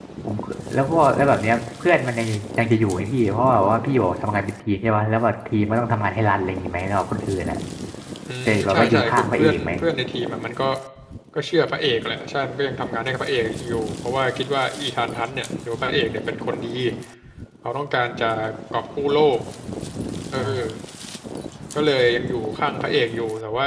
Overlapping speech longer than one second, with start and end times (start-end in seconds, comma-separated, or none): 8.4-9.7